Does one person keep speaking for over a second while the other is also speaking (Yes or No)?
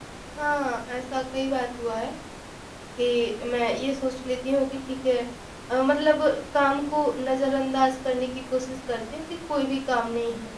No